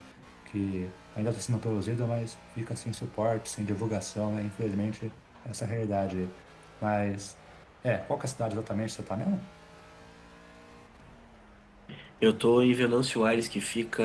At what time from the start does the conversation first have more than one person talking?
none

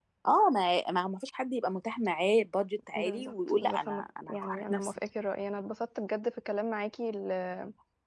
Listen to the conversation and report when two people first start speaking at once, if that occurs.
3.0 s

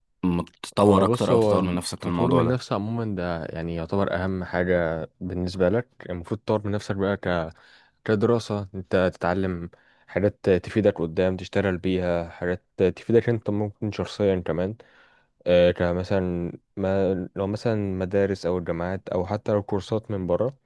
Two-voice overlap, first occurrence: 0.8 s

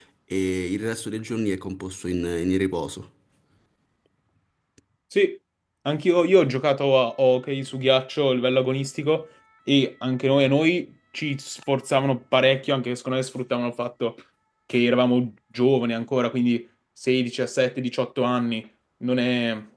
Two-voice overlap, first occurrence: none

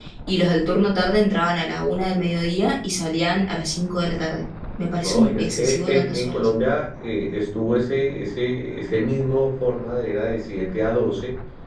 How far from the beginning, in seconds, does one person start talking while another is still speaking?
5.0 s

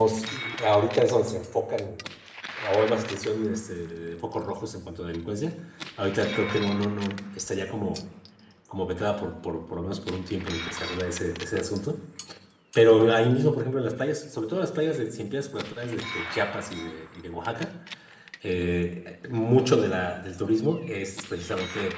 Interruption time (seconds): none

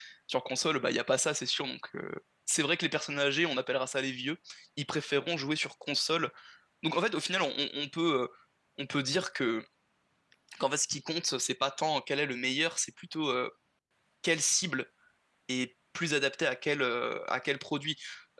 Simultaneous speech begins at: none

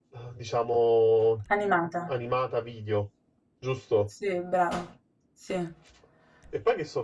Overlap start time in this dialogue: none

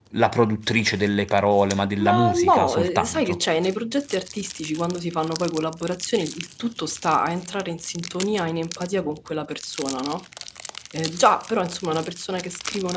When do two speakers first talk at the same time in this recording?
2.0 s

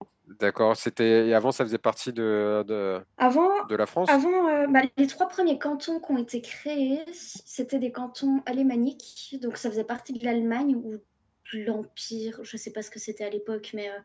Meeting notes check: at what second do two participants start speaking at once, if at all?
none

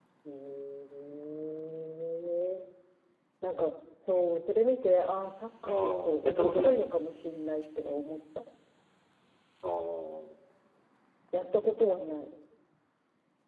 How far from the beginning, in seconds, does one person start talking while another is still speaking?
5.6 s

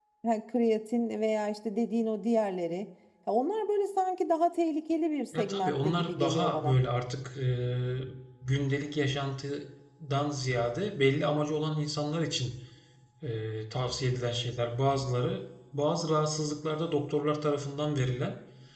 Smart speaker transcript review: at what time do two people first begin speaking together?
5.3 s

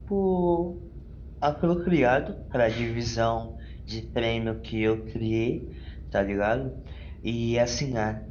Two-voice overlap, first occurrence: none

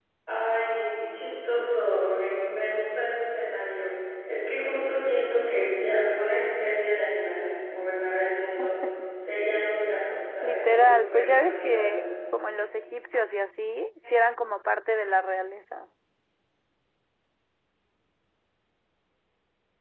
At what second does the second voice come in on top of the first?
10.4 s

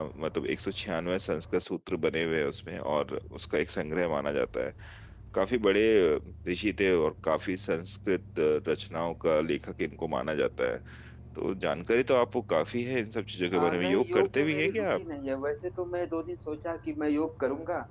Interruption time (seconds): 13.5 s

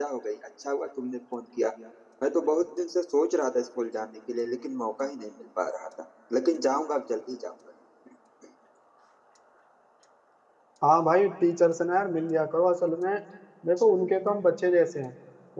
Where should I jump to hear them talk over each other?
none

